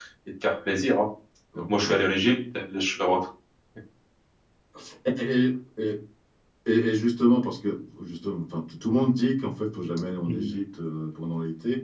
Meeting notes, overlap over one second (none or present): none